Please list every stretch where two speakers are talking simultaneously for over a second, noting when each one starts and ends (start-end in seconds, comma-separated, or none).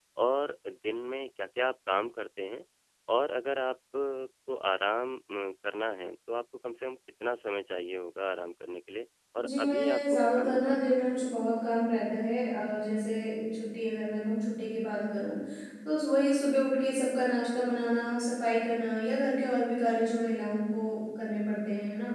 9.4-11.0